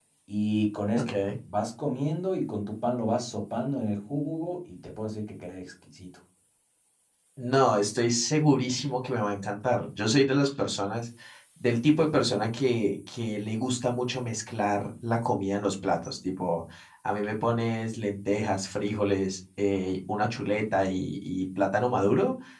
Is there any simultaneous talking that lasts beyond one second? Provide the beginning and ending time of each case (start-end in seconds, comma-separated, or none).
none